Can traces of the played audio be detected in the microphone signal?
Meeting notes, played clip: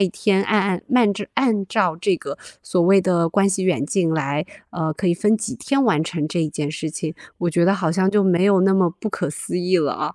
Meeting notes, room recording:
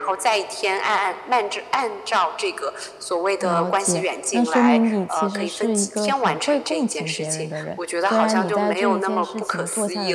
Yes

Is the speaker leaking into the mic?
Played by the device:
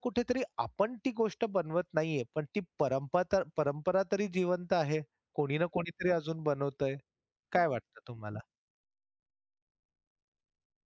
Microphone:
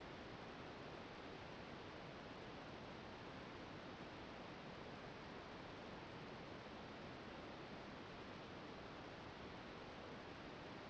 No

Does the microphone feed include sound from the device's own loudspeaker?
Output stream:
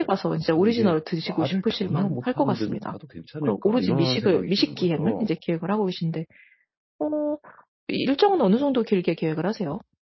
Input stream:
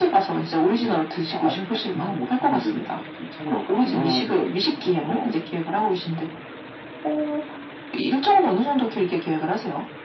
Yes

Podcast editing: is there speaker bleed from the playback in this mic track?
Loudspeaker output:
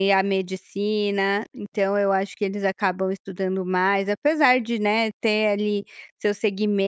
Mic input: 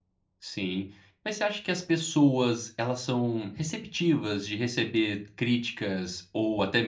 No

